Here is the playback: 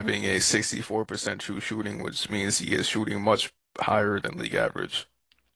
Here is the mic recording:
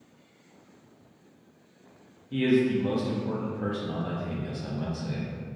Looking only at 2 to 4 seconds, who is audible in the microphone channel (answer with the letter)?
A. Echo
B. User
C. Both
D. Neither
B